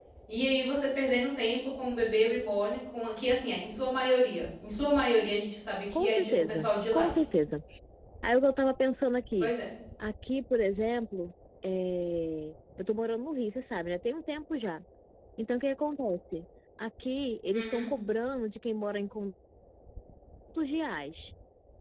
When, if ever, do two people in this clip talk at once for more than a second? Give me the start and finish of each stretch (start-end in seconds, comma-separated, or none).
5.9-7.2